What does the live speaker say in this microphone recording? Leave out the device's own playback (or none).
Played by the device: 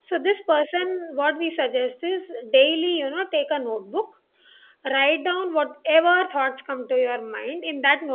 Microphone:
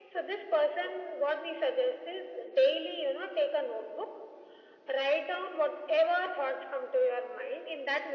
none